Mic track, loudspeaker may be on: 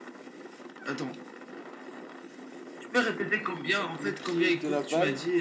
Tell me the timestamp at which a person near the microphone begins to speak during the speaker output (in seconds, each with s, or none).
3.9 s